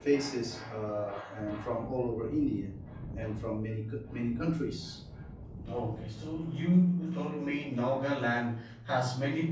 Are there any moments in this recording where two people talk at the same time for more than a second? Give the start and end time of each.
none

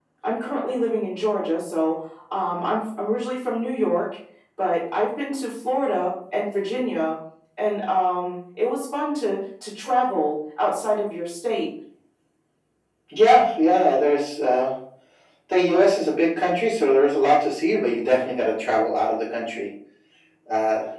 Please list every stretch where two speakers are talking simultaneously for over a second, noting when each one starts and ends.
none

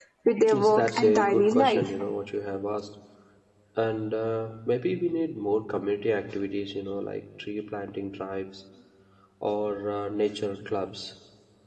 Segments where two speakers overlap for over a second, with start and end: 0.5-1.9

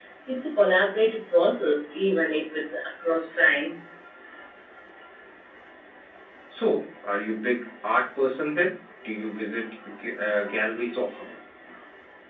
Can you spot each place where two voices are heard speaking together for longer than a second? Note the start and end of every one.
none

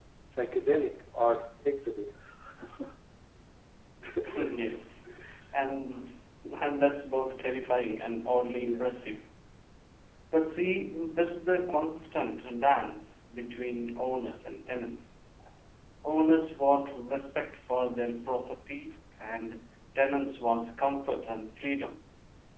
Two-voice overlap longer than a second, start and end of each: none

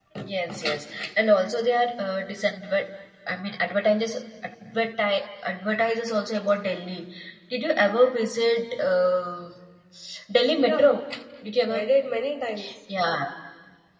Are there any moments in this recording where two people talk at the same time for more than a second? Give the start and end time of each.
none

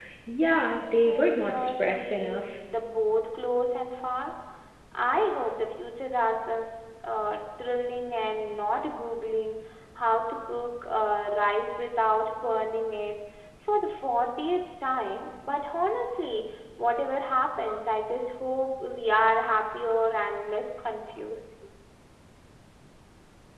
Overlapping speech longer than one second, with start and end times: 1.1-2.5

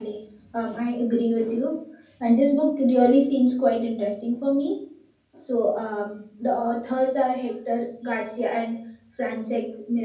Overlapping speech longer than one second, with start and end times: none

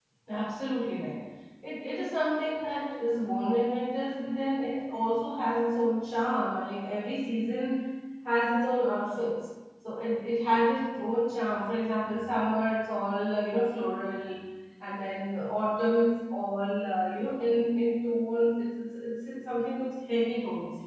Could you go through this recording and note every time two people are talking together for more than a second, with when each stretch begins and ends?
none

